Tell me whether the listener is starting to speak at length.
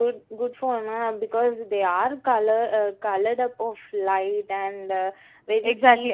Yes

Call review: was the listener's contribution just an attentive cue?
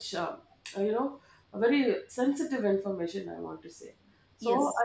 Yes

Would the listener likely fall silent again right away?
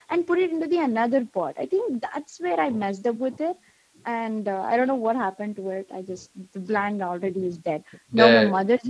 Yes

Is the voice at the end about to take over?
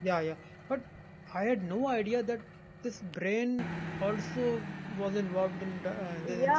Yes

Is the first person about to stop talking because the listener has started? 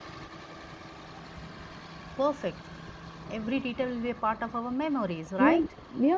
Yes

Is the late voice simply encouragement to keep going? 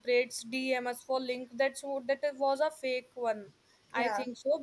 Yes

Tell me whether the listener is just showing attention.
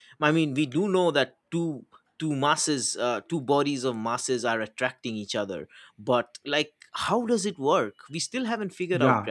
No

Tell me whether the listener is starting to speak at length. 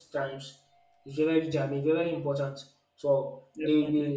No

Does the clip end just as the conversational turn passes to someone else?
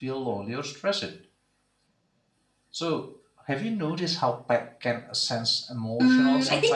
Yes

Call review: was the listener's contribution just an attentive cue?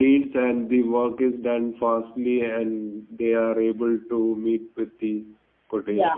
No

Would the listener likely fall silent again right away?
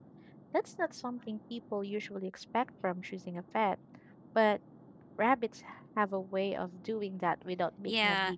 No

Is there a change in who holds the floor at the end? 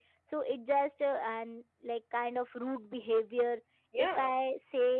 No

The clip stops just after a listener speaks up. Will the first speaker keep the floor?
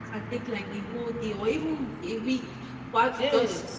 Yes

